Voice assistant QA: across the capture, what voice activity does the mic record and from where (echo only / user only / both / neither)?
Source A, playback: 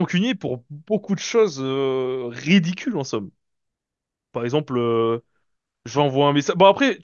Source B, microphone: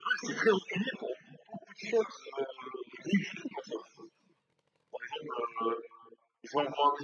echo only